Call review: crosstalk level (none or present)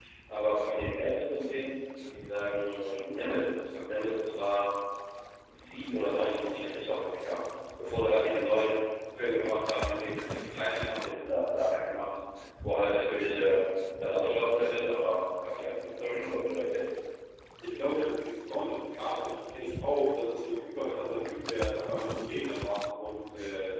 none